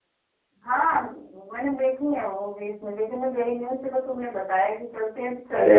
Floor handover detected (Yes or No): Yes